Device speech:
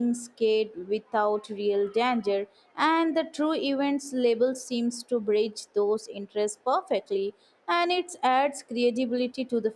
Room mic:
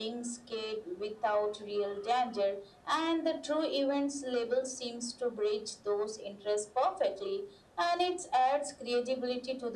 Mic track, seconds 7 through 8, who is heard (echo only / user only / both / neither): echo only